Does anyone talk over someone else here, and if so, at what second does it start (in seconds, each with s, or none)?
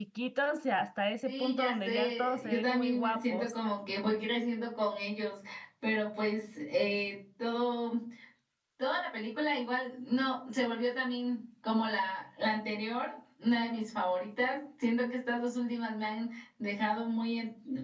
1.2 s